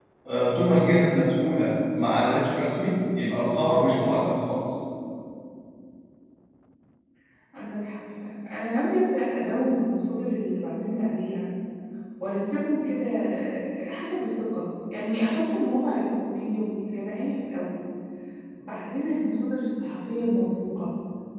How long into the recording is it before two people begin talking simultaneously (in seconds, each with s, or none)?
none